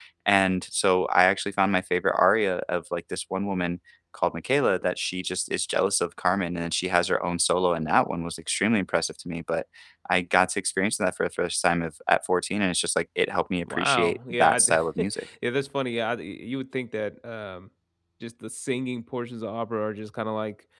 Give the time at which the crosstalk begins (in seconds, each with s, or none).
13.7 s